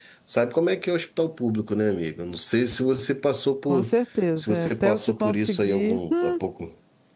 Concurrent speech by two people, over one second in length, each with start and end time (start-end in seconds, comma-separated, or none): 4.4-6.3